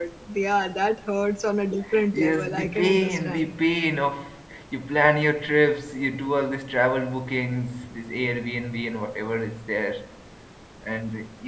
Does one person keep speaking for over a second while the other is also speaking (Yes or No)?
Yes